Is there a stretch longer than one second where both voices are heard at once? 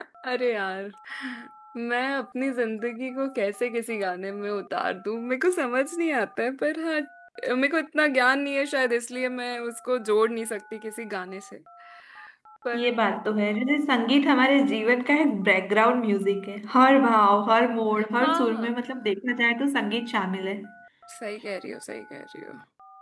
No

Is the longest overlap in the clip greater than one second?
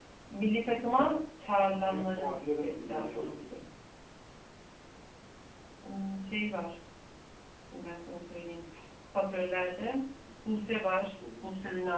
Yes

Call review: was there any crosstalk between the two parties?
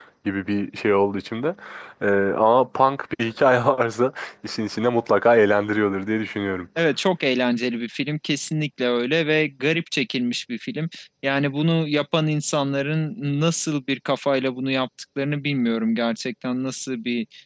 No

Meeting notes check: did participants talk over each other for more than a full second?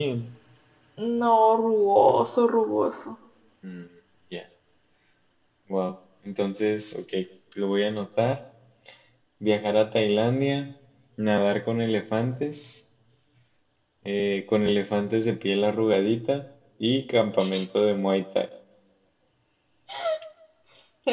No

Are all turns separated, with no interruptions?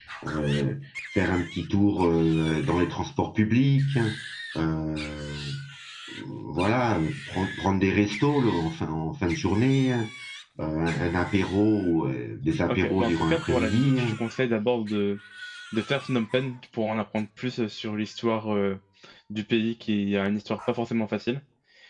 No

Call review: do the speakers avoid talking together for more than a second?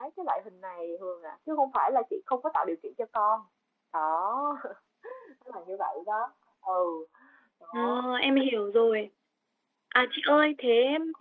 Yes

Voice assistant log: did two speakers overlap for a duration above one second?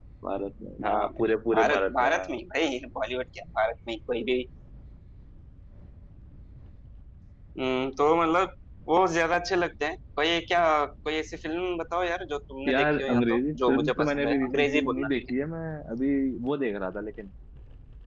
Yes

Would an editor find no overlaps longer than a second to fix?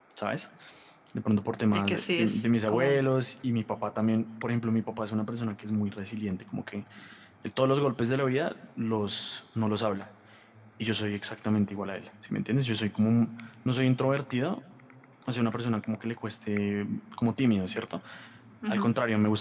No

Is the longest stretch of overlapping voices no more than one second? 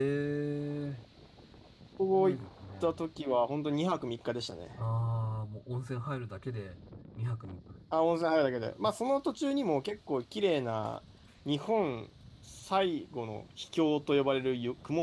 Yes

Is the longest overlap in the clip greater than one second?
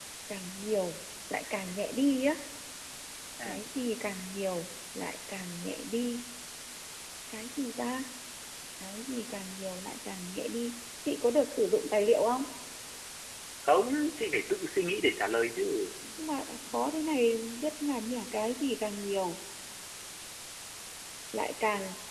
No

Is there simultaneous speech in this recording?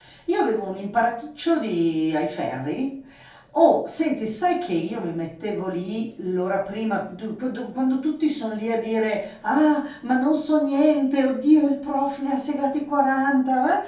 No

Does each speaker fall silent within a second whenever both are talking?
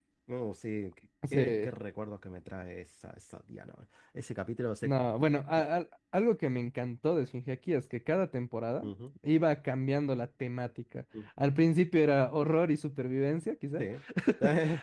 Yes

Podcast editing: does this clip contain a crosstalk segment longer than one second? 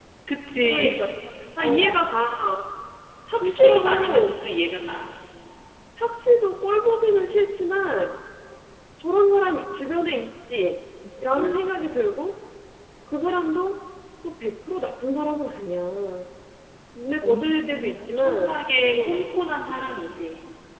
Yes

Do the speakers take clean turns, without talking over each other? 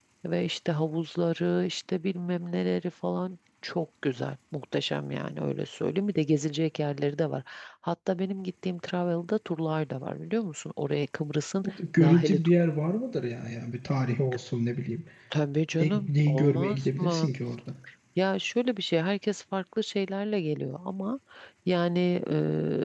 No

